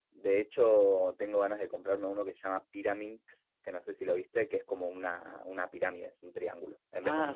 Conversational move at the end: taking over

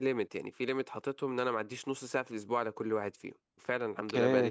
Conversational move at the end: taking over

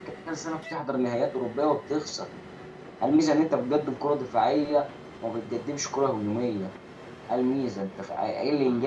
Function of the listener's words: listening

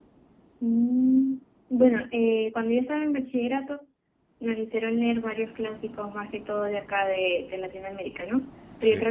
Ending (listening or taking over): listening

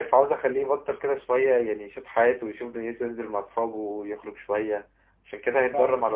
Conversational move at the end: taking over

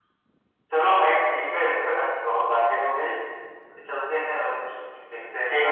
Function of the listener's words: taking over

